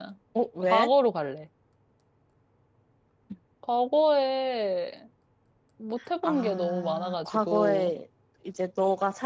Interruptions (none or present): present